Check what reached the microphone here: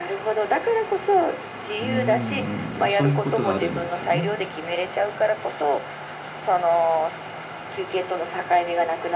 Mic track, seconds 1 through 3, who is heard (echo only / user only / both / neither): both